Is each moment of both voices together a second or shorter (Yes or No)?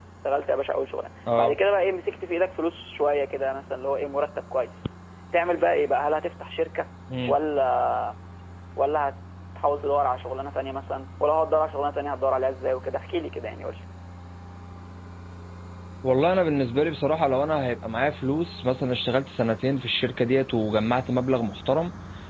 Yes